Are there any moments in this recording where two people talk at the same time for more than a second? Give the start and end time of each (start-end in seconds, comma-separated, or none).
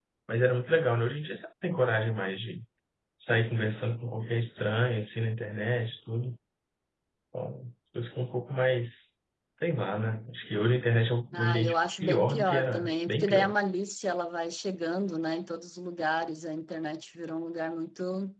11.3-13.5